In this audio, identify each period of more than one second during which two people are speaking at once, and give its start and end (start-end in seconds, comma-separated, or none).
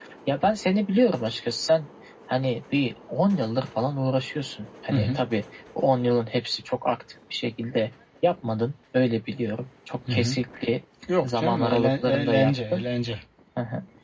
11.2-12.8